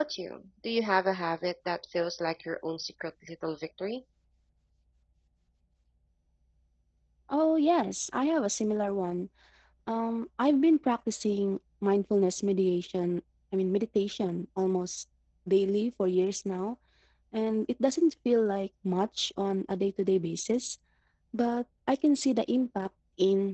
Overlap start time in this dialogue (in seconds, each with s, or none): none